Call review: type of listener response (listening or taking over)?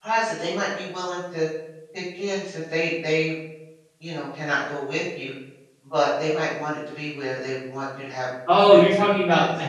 taking over